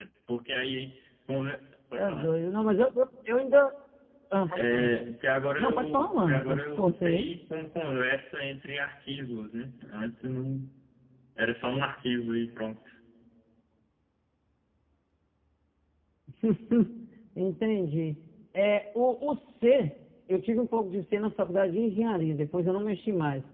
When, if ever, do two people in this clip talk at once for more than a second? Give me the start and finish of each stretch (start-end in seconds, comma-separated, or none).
5.6-7.3